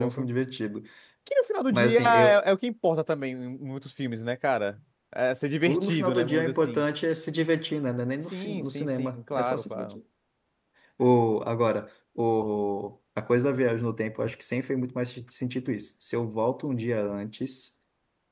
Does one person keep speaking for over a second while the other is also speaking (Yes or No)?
Yes